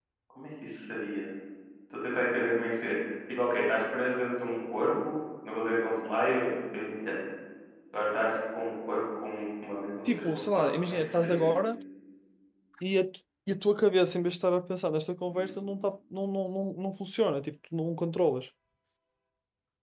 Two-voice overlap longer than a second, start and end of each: 10.0-11.5

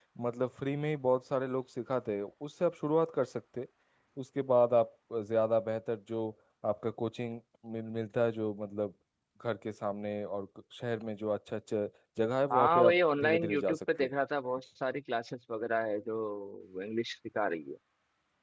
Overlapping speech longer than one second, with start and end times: 12.5-14.1

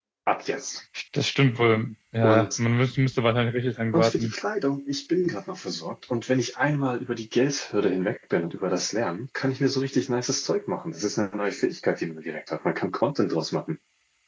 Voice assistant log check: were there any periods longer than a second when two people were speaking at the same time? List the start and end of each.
none

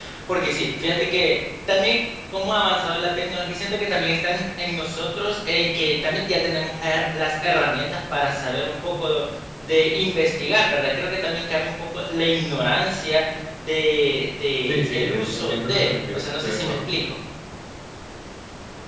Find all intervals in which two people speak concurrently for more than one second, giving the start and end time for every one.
14.7-16.8

